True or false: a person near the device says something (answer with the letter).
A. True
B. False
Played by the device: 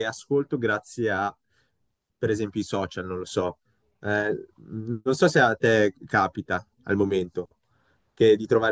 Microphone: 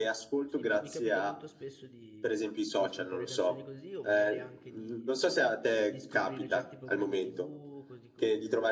A